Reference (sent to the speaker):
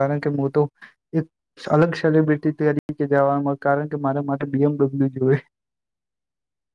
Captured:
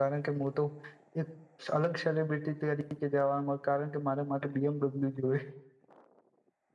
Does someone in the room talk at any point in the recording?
No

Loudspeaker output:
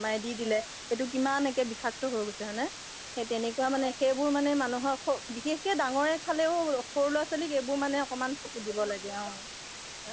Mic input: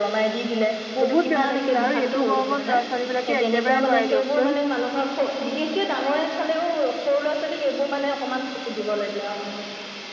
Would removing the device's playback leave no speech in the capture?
No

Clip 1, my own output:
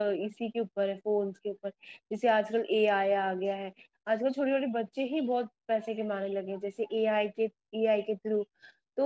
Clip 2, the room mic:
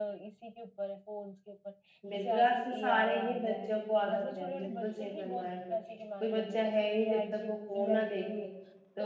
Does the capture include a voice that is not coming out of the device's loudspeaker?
Yes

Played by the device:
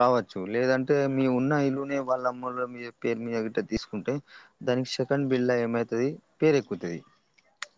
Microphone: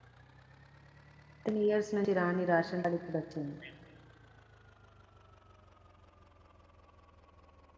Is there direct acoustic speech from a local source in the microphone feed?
Yes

